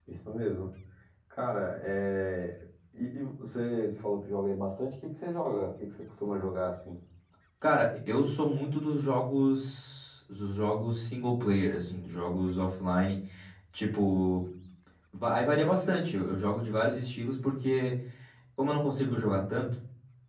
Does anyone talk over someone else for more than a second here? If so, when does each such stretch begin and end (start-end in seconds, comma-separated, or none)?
none